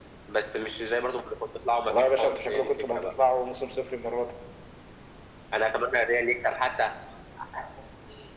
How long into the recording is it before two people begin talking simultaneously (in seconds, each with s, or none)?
1.9 s